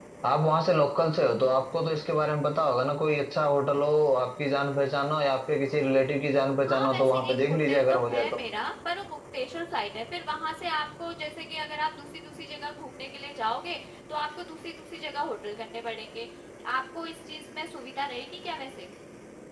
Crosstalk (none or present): present